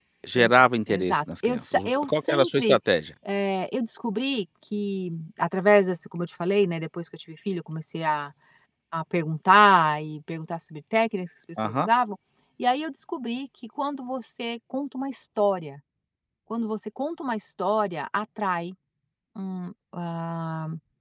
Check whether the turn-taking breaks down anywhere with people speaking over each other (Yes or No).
Yes